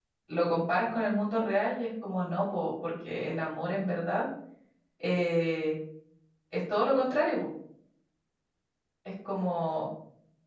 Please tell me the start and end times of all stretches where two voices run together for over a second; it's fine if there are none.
none

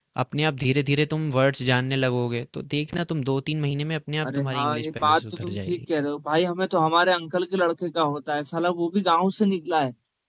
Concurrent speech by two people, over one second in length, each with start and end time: 4.3-5.8

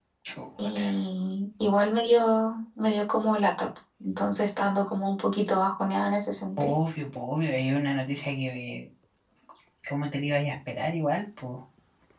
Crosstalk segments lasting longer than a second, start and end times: none

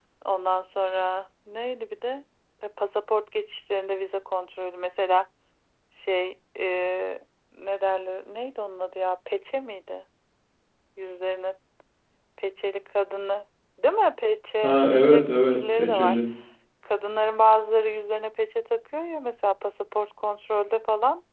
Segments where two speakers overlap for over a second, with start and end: 14.6-16.2

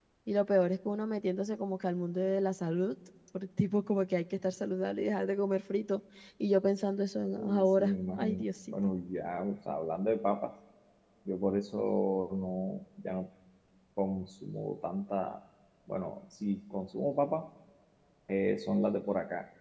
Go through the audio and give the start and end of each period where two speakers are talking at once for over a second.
7.3-8.7

